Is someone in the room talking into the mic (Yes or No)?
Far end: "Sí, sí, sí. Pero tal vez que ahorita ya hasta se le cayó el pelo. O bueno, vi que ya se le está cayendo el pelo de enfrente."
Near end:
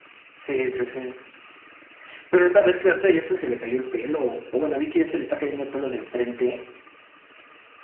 No